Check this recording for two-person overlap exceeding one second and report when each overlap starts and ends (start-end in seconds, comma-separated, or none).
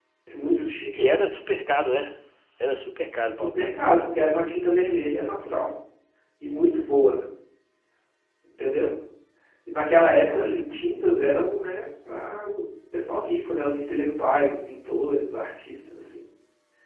2.6-4.1